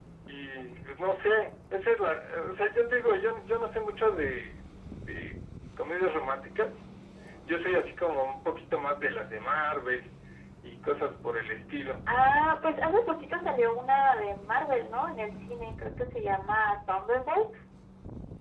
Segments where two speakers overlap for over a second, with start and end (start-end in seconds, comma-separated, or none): none